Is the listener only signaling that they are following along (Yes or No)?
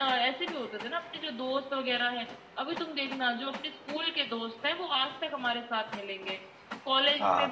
Yes